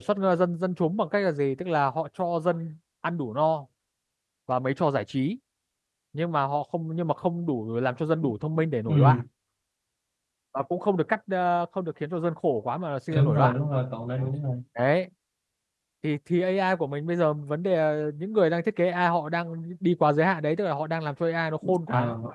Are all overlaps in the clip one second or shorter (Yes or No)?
Yes